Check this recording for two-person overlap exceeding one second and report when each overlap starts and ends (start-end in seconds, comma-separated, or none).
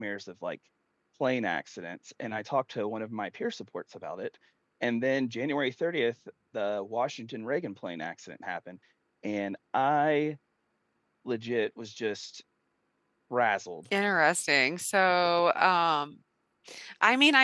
none